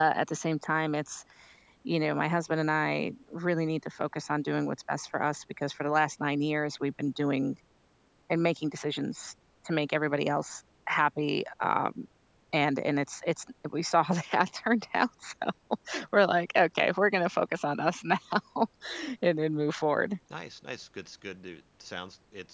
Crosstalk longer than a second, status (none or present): none